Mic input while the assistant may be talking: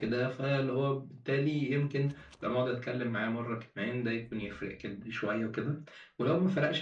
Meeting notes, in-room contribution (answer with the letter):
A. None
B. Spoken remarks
A